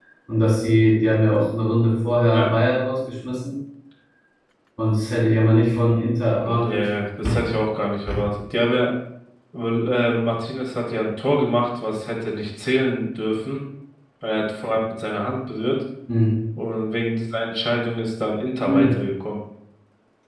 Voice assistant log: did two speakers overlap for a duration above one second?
No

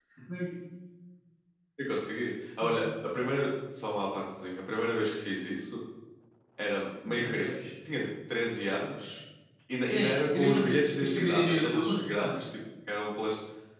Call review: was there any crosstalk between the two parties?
Yes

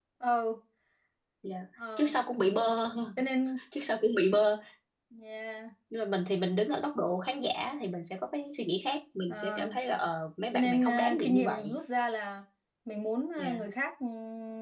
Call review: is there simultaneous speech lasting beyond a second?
Yes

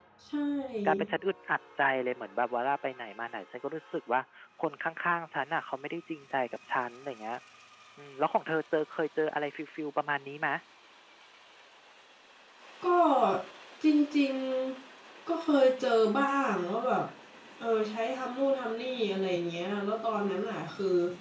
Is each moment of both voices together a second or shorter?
Yes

